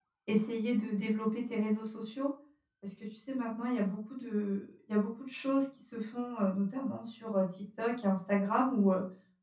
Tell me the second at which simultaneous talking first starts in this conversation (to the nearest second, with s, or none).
none